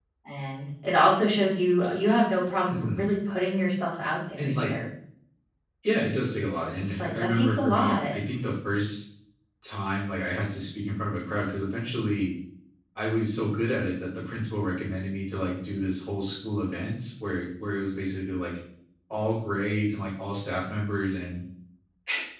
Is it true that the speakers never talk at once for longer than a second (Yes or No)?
No